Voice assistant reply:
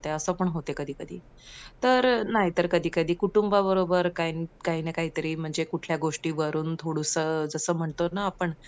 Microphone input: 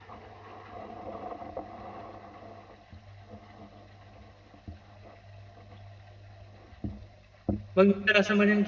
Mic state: user only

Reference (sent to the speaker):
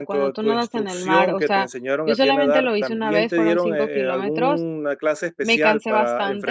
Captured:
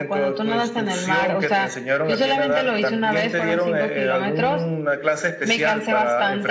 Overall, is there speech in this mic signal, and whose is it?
echo only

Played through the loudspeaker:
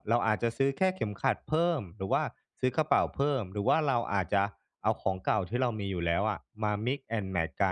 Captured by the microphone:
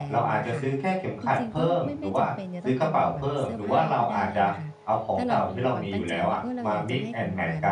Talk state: both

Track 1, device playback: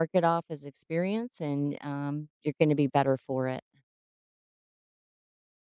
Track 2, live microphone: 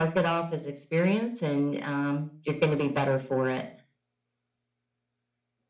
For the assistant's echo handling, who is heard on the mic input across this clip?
echo only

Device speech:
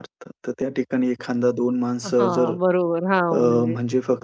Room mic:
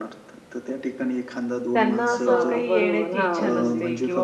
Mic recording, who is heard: both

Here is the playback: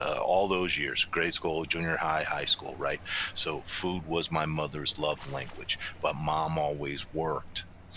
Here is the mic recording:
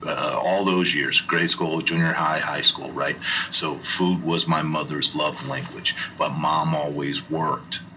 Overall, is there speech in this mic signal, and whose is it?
echo only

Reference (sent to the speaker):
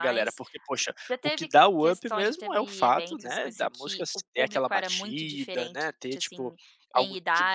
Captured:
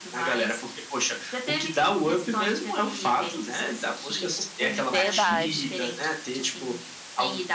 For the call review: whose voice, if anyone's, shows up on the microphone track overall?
both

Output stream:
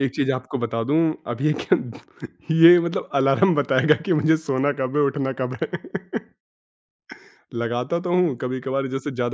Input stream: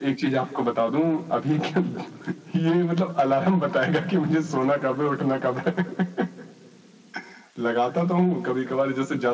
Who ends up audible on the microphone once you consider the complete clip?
echo only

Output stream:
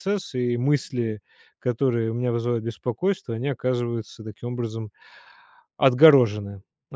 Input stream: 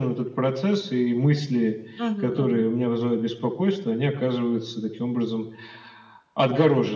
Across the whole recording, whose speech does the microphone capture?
both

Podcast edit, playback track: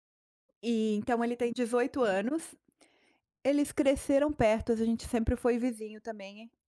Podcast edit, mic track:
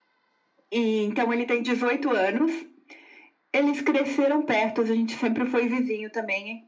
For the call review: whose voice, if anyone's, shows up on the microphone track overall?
echo only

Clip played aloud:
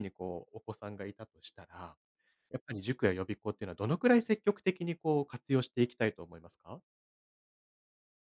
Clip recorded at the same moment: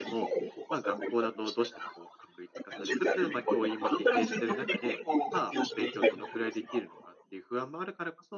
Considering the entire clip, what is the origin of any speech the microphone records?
both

